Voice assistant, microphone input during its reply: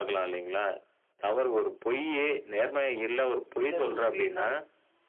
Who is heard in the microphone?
both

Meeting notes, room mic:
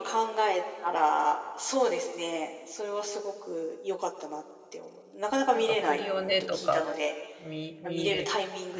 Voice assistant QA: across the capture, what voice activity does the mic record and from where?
both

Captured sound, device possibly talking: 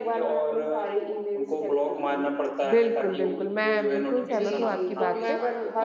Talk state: both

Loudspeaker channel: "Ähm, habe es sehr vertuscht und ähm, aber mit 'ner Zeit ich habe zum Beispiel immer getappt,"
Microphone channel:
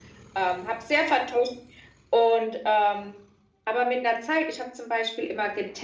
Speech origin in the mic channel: echo only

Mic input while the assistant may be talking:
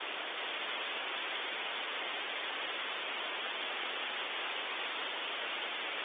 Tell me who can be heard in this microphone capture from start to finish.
neither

